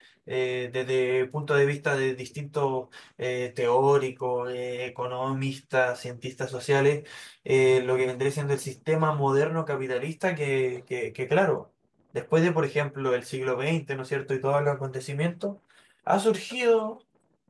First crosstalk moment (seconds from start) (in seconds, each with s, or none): none